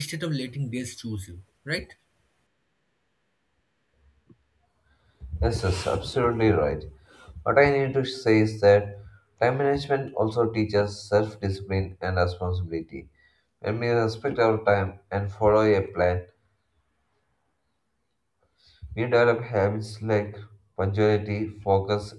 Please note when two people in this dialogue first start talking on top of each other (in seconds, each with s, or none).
none